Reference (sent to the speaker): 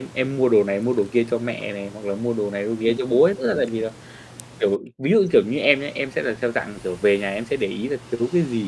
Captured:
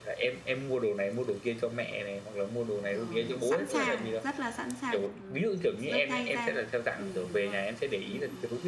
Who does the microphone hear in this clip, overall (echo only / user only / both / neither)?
both